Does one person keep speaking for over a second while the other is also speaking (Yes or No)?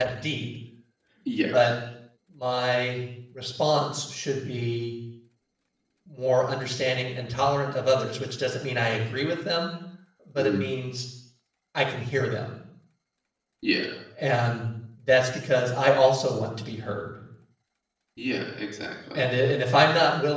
No